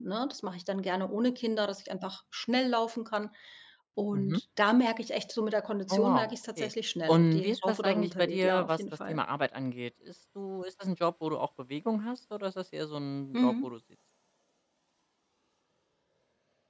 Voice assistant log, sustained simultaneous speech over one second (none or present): present